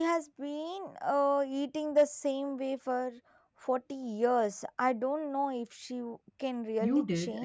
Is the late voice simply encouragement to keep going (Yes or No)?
No